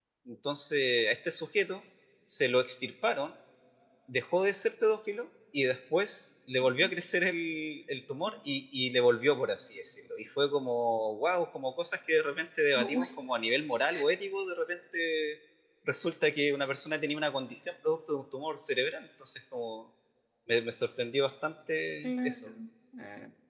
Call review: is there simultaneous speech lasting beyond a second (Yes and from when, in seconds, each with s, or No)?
No